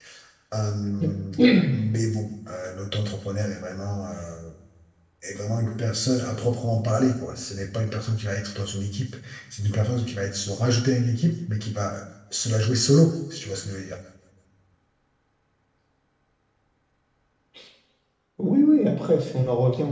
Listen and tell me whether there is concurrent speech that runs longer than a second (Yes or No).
No